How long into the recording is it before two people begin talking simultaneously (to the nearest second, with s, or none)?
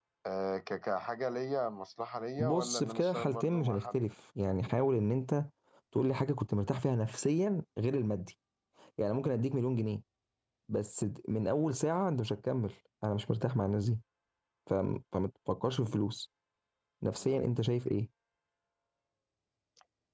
2 s